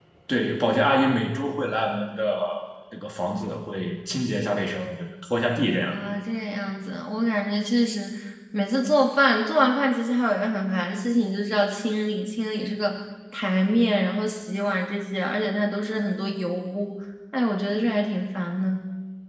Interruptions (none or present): none